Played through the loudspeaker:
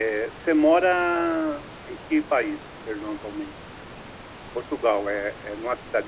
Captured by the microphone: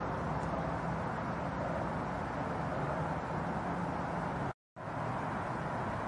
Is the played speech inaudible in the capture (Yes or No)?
Yes